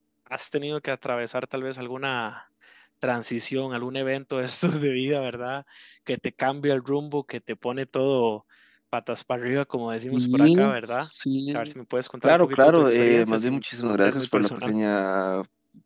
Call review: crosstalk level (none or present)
present